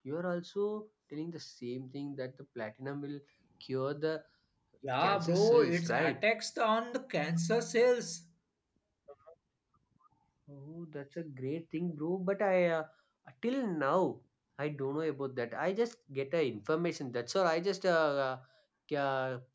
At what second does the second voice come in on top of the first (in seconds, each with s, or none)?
5.0 s